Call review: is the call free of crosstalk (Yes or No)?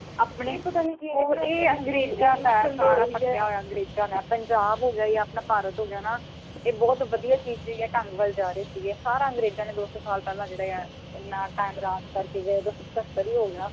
No